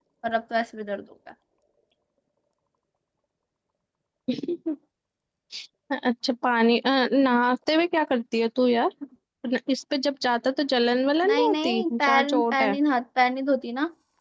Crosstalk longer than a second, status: present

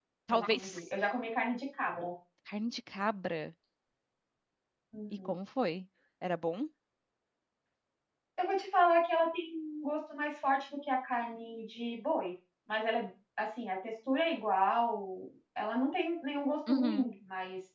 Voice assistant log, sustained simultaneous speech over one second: none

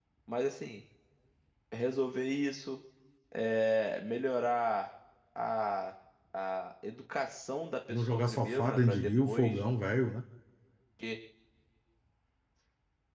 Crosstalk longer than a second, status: present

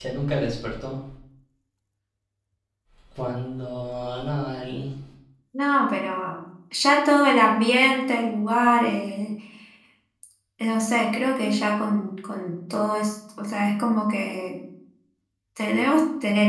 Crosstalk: none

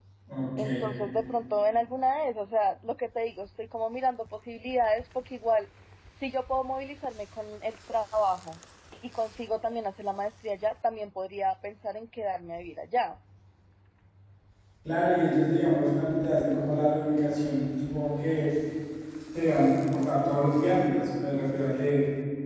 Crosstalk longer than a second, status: none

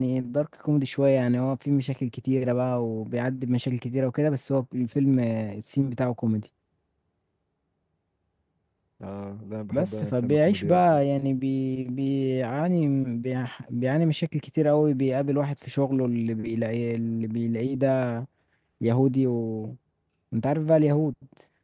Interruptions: present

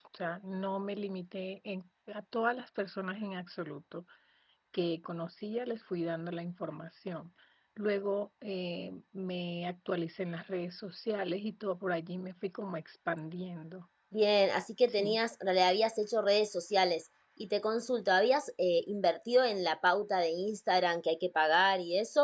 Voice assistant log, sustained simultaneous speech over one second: none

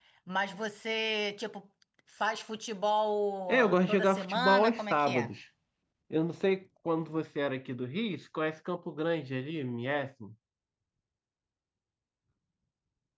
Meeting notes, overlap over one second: present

